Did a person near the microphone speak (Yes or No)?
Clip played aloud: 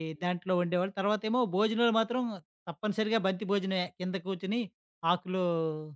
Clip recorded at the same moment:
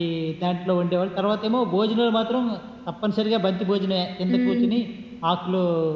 Yes